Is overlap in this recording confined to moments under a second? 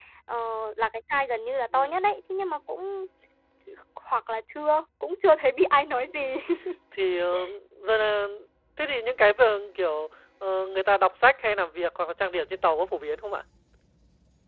Yes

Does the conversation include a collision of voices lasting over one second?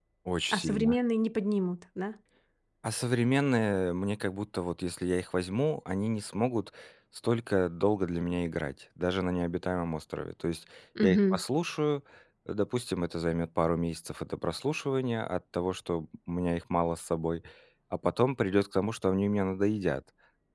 No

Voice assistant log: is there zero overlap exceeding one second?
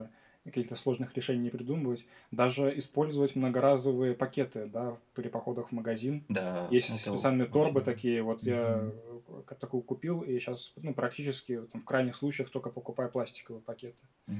No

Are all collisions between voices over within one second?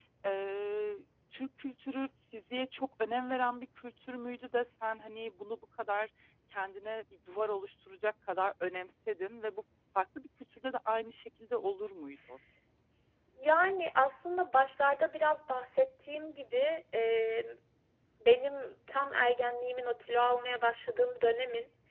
Yes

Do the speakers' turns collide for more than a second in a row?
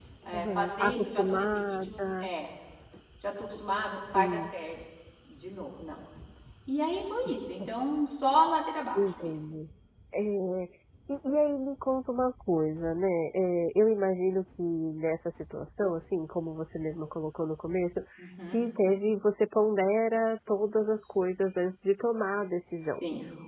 Yes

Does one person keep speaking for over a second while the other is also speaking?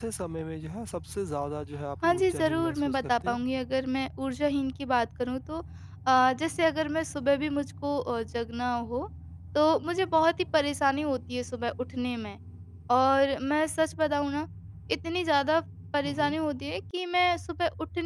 Yes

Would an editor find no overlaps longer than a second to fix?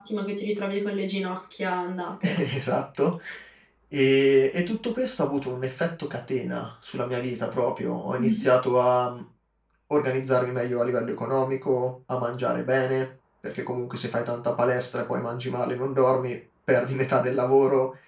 Yes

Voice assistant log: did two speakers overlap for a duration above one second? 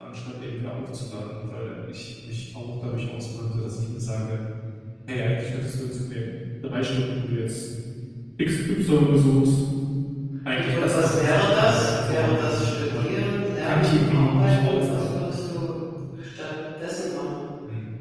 Yes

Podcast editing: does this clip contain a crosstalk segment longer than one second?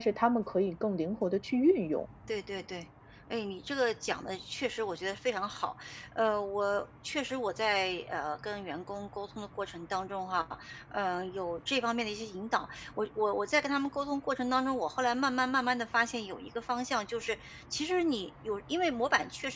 No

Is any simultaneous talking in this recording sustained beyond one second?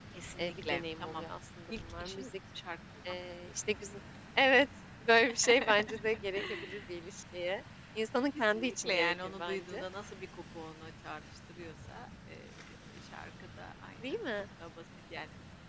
Yes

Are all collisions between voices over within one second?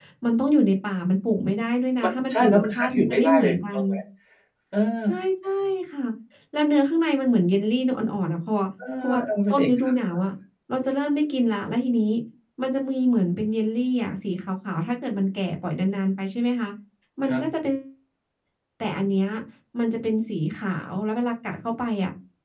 No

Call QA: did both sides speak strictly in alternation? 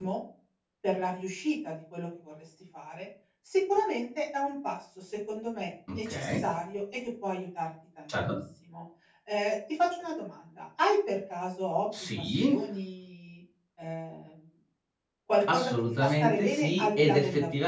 No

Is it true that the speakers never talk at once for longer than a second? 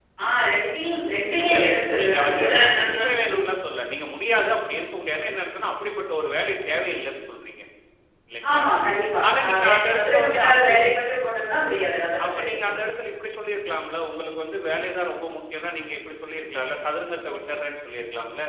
No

